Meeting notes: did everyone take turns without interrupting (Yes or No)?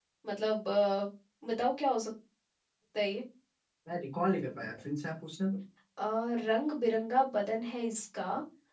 Yes